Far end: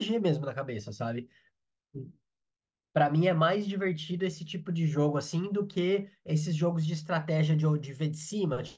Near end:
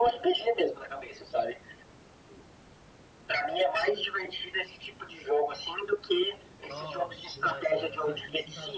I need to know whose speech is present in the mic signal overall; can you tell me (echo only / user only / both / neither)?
both